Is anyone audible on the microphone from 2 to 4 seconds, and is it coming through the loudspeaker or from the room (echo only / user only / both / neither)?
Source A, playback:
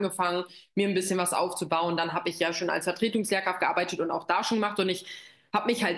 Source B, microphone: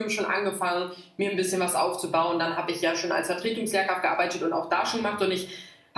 echo only